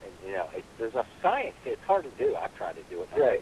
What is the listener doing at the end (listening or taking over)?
taking over